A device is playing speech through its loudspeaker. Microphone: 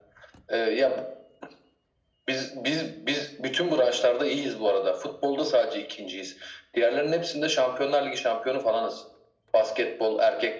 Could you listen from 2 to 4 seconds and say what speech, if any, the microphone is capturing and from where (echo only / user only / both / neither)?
echo only